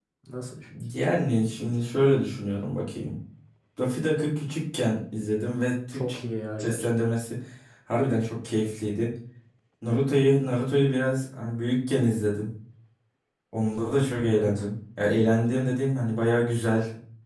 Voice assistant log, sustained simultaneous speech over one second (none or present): none